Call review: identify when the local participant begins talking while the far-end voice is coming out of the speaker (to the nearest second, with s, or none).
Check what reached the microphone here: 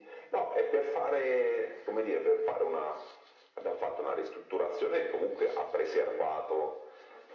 none